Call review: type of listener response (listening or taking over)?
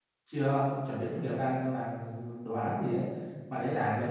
listening